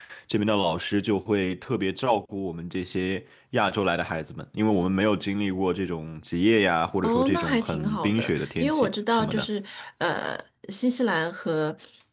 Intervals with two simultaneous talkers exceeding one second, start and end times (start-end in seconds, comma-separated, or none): 7.0-9.5